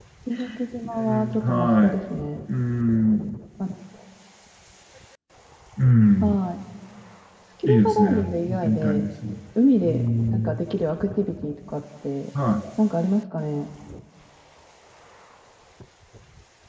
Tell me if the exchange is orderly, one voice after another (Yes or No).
No